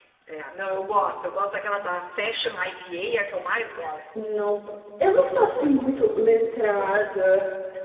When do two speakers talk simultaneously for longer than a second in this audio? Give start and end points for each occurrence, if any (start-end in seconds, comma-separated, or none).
none